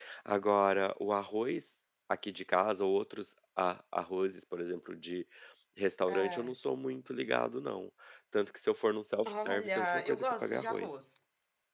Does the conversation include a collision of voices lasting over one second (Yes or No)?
Yes